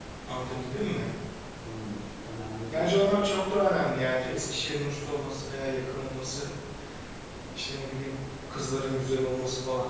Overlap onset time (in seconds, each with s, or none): 2.7 s